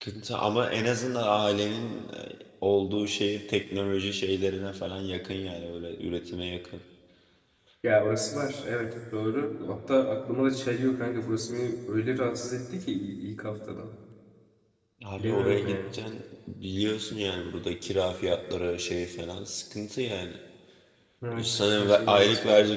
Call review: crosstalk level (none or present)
present